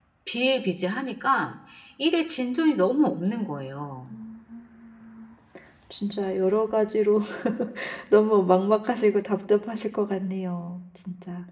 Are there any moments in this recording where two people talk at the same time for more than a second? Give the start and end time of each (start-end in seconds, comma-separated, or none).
none